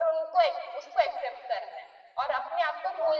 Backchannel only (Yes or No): Yes